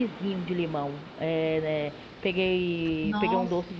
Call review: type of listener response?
listening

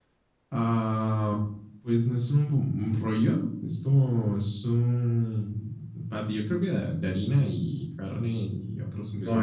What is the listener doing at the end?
taking over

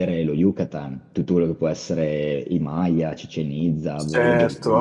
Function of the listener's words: taking over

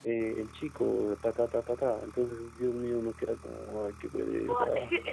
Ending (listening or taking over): taking over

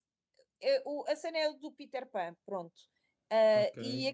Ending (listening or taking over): listening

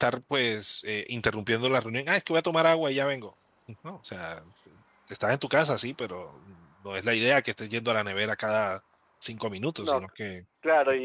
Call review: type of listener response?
taking over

